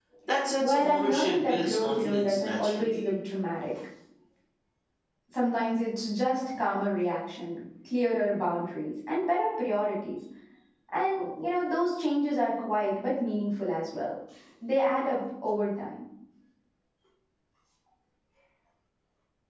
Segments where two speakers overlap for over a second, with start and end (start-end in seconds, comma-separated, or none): 0.6-3.0